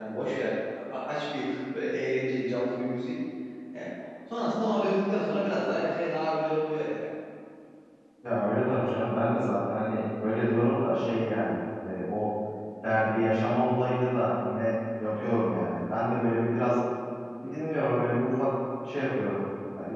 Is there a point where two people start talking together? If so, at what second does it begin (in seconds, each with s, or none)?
none